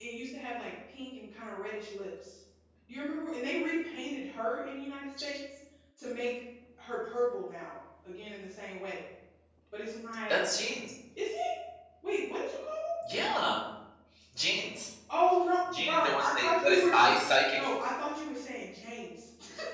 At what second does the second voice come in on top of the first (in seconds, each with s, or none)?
15.7 s